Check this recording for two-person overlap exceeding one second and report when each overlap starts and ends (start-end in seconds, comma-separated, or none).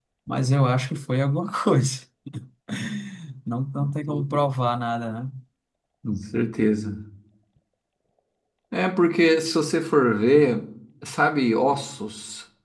none